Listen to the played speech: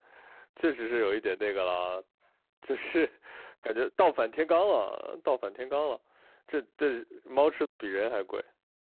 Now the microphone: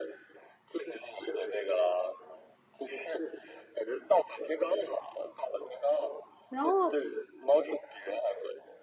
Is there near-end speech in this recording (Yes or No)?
Yes